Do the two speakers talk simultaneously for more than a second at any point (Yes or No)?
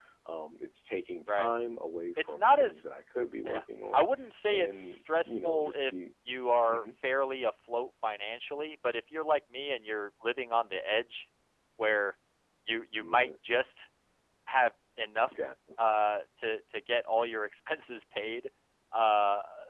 Yes